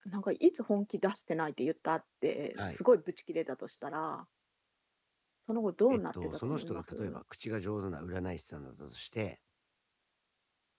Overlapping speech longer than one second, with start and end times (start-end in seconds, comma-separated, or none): 5.9-7.2